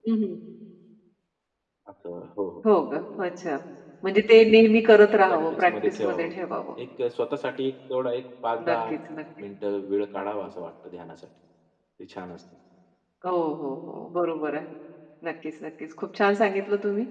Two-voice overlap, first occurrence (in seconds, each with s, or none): 5.1 s